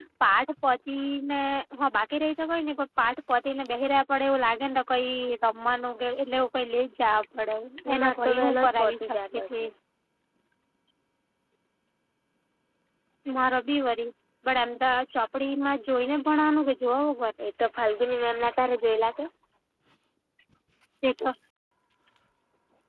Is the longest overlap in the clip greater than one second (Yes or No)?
Yes